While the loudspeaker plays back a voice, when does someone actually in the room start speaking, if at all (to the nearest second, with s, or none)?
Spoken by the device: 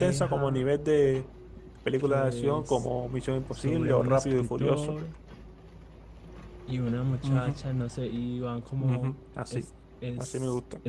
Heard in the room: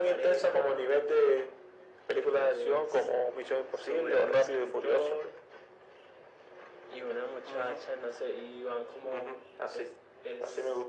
none